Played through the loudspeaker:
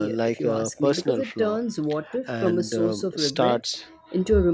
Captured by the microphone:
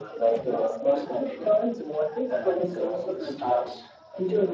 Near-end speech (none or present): none